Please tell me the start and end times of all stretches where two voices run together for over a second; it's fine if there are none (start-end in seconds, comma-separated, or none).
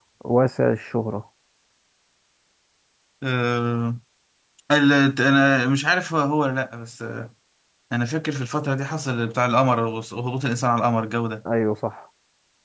none